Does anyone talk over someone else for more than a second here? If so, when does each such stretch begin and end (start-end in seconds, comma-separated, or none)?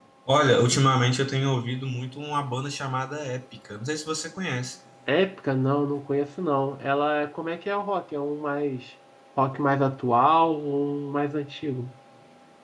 none